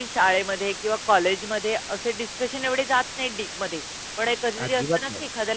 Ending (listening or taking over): listening